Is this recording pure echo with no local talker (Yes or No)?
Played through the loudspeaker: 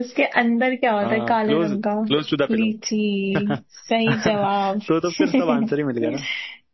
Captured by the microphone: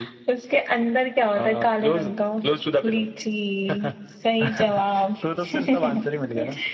Yes